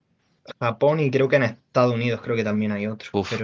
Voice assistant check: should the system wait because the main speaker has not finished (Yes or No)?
No